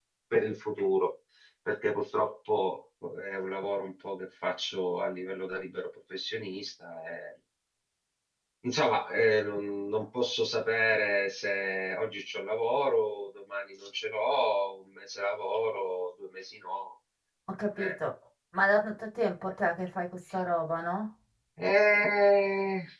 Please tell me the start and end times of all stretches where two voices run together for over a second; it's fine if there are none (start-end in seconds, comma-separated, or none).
none